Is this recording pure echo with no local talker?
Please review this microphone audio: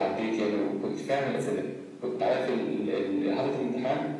Yes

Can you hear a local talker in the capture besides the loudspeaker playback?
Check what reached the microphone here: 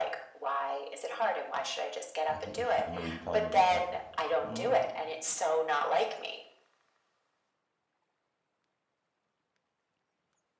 Yes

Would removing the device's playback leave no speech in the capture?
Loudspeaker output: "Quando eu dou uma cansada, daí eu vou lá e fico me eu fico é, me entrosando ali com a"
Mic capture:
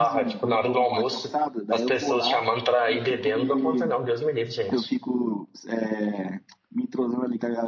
No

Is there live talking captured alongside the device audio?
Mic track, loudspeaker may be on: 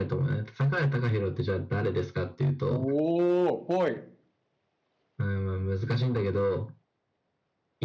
Yes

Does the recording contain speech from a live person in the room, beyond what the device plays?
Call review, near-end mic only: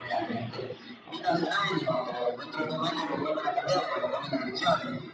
No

